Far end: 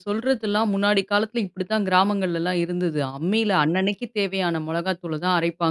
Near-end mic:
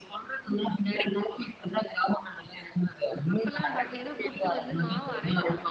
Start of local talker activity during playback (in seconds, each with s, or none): 3.4 s